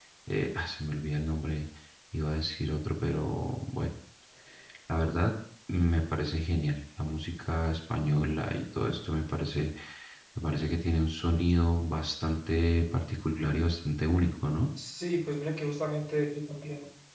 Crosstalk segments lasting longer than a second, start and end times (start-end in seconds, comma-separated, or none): none